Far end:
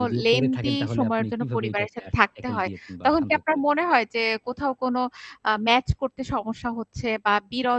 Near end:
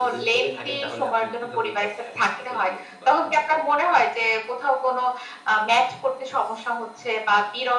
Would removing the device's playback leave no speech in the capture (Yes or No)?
Yes